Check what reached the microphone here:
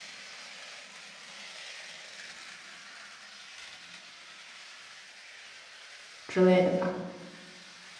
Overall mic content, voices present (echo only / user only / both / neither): user only